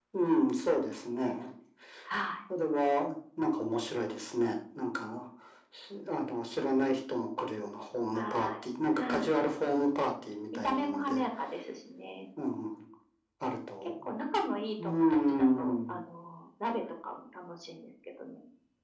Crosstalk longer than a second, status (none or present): present